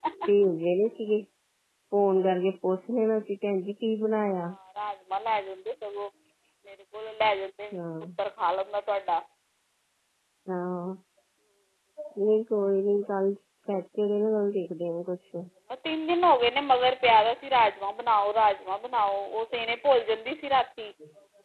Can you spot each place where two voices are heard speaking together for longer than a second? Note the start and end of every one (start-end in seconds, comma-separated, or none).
none